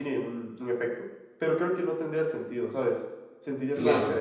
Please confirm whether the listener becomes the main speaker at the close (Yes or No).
Yes